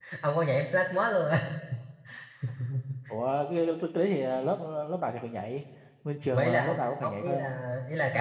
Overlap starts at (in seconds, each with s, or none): 6.3 s